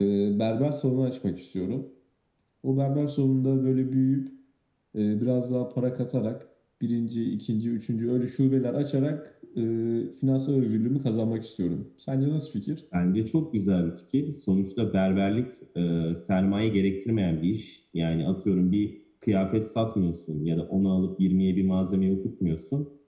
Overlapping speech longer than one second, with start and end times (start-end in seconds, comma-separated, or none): none